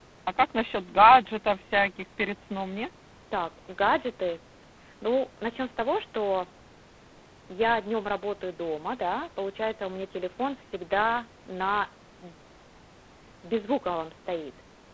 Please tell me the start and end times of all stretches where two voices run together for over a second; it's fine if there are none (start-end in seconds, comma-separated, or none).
none